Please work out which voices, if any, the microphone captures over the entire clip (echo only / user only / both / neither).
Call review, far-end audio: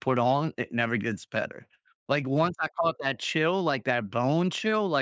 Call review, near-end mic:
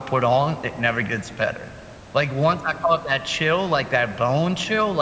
echo only